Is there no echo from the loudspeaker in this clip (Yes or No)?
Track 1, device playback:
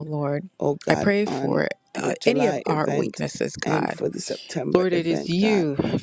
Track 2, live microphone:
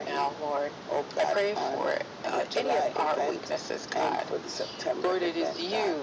No